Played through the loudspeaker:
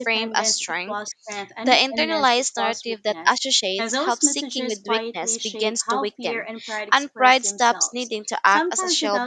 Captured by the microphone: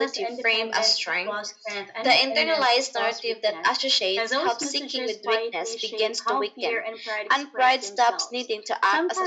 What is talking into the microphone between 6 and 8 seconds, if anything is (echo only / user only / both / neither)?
echo only